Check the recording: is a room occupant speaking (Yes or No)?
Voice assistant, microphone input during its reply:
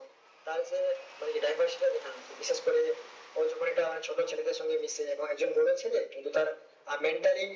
No